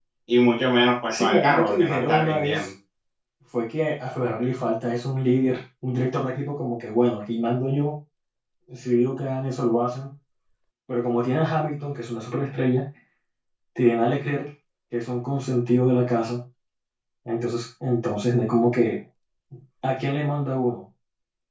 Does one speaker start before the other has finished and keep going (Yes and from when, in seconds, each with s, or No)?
Yes, from 1.1 s